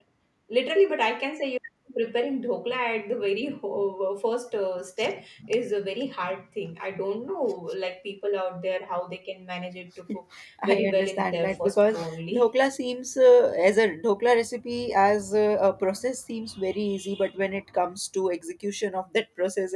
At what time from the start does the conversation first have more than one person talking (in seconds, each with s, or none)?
10.6 s